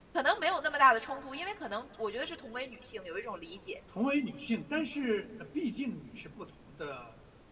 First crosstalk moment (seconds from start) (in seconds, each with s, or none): none